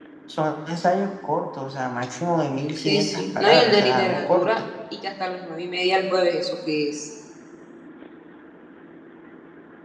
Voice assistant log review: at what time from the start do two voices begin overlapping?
2.8 s

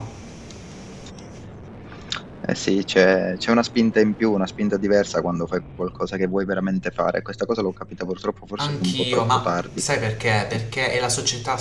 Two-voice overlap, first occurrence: 8.6 s

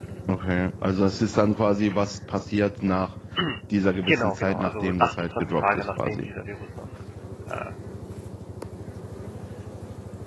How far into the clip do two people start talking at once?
4.1 s

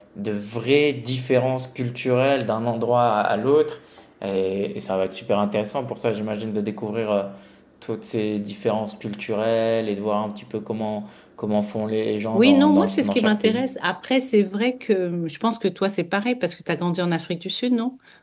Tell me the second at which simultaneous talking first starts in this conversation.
12.3 s

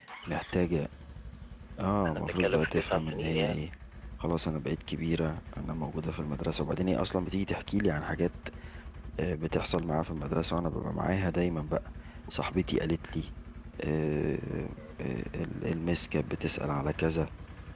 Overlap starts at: 2.0 s

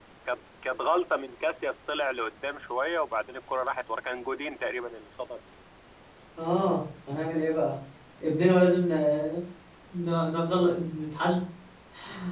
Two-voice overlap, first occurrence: none

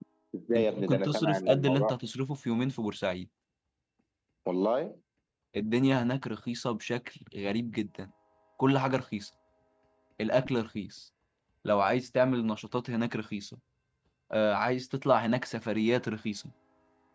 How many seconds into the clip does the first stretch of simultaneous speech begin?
0.6 s

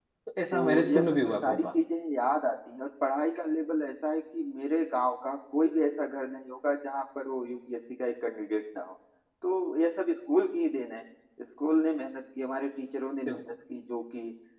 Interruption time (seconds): 0.5 s

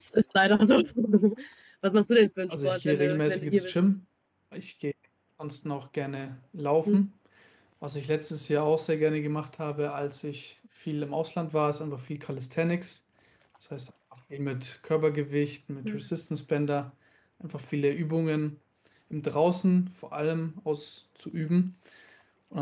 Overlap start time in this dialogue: 2.5 s

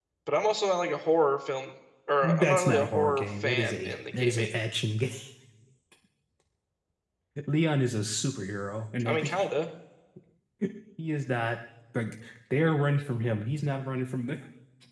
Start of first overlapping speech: 2.2 s

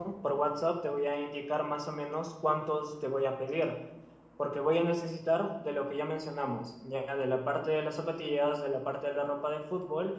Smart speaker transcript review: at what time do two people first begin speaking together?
none

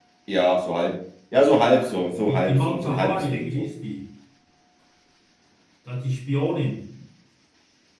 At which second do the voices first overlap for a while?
2.3 s

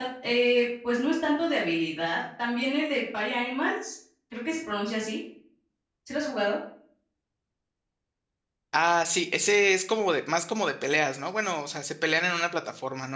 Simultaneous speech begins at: none

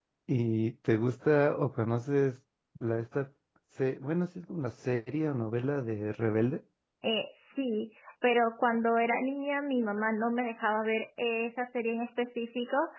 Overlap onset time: none

